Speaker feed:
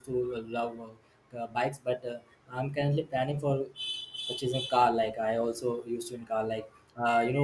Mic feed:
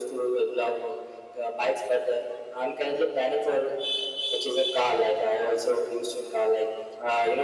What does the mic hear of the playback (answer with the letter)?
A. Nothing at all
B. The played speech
B